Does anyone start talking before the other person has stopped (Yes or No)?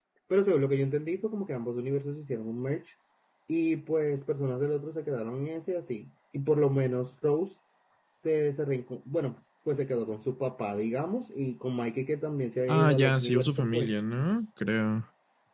Yes